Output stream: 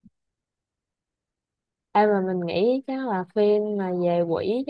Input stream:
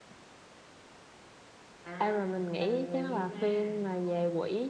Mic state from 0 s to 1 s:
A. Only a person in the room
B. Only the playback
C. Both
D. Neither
D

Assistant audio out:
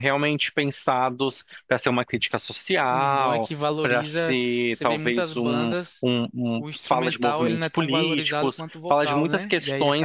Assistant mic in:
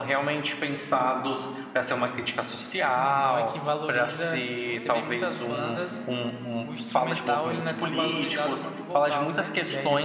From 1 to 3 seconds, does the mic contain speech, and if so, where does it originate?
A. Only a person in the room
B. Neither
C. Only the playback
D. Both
C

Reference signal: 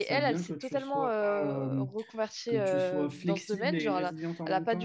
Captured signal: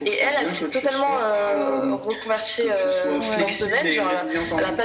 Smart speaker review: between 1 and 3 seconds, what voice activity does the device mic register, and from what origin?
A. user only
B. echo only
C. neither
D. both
B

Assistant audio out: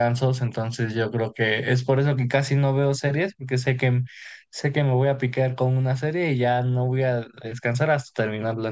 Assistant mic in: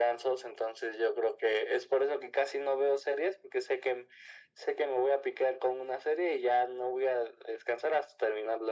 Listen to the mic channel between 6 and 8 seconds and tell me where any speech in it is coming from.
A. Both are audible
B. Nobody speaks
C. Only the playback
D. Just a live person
C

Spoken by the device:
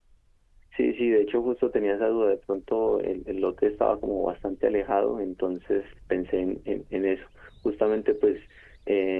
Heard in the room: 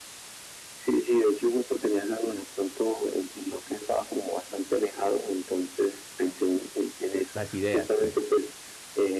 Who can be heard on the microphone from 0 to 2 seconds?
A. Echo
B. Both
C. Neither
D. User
A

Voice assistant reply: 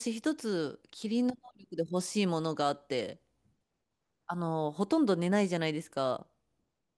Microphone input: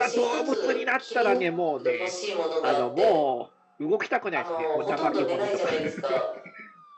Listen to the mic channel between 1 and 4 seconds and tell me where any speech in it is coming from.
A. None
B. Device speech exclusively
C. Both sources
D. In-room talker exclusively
C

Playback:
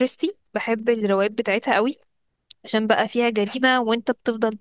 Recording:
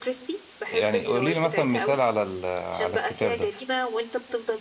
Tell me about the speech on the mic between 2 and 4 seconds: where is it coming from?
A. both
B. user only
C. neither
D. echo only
A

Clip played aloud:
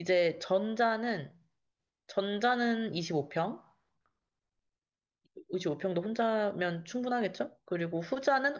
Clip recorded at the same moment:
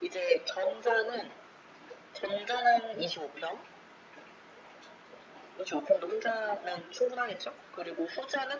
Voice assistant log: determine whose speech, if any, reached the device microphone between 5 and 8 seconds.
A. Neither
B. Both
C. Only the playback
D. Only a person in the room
C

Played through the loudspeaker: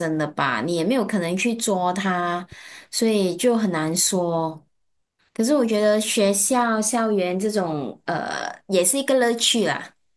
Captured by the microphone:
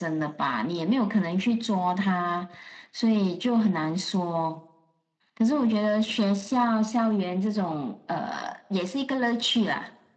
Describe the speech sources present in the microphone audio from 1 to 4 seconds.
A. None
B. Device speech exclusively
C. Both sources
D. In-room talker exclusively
B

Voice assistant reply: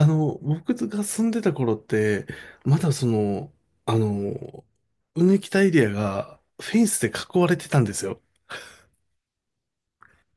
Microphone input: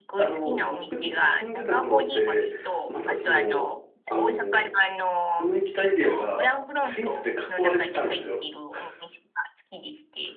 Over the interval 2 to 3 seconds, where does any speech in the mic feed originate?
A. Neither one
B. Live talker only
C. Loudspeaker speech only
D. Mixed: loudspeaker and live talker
D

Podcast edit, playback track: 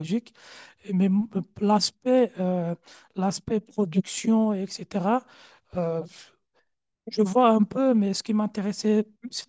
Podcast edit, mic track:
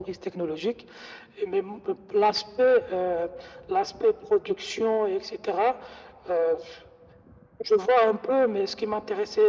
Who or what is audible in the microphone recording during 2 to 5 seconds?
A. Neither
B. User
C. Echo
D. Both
C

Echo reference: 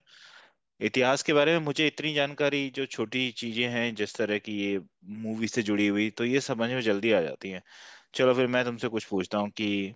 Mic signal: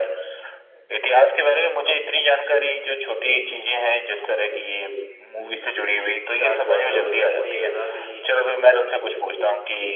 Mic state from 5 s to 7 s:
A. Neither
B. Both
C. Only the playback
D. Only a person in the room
B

